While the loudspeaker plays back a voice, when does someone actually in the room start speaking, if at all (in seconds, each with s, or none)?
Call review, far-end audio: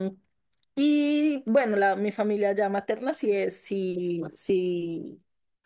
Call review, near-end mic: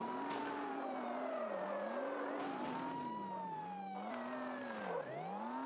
none